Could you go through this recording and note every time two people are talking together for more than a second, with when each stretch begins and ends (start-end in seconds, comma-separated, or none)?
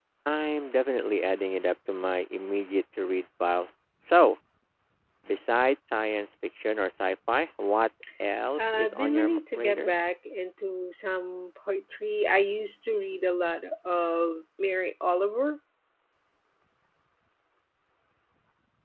8.6-9.9